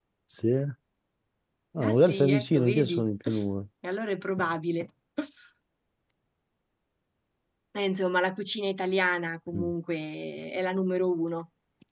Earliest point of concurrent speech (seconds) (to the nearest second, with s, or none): 2 s